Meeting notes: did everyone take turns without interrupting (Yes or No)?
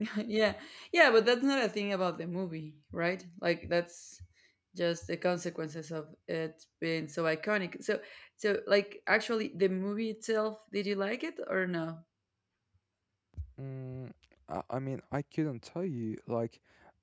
Yes